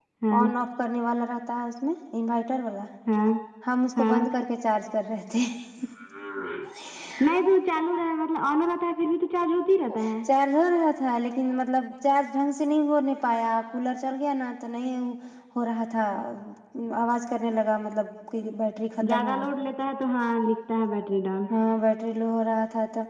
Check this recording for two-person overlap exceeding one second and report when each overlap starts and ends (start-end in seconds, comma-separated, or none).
none